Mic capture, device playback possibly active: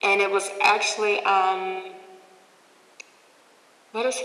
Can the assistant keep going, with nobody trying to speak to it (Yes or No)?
Yes